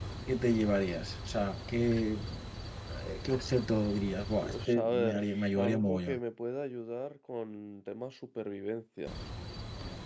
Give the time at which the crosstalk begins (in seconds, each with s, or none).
4.4 s